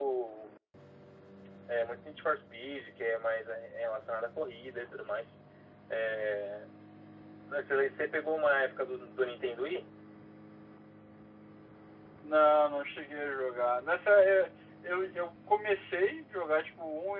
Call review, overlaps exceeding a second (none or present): none